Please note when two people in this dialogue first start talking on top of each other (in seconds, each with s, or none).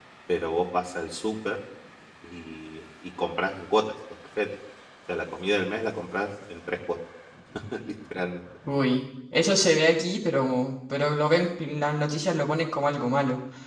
none